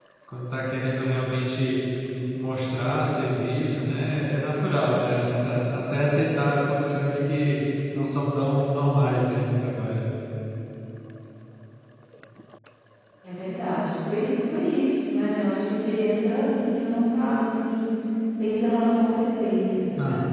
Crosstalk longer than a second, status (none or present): none